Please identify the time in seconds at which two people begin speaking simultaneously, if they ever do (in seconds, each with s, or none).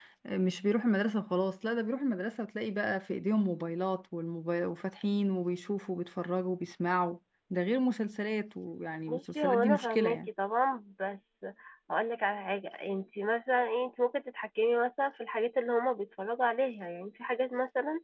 9.1 s